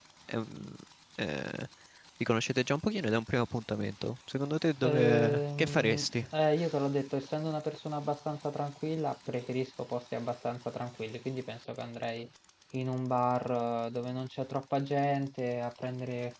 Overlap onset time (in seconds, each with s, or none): 4.8 s